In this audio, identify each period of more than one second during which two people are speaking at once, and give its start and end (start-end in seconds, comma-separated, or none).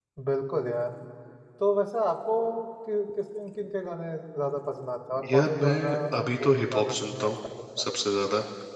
5.3-7.3